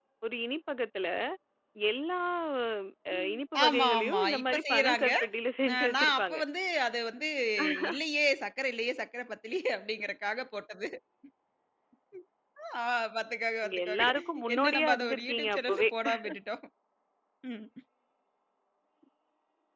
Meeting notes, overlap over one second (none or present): present